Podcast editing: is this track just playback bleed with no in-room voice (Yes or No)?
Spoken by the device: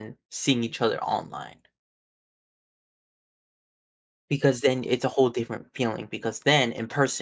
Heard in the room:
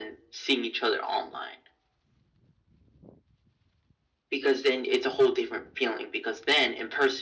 Yes